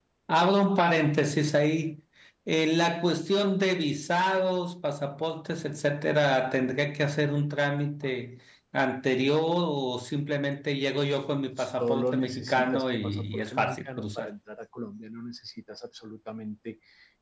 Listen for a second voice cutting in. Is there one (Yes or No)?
Yes